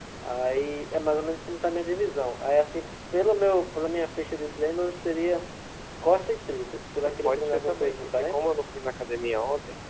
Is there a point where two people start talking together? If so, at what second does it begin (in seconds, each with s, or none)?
7.2 s